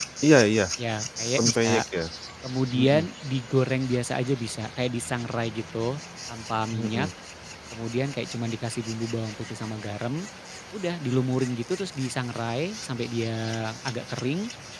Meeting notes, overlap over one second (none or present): none